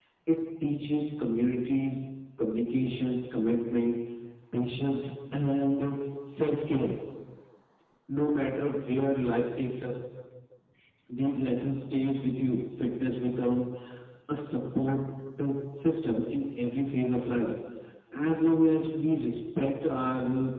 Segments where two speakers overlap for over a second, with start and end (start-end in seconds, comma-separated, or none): none